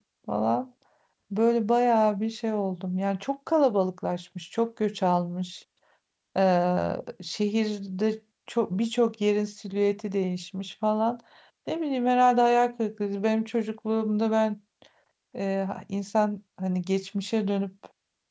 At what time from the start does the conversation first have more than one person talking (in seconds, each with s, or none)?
none